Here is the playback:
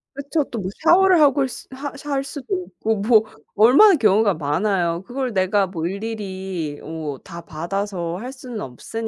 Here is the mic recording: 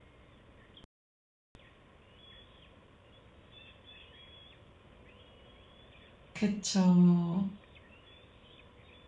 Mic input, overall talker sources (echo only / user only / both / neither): user only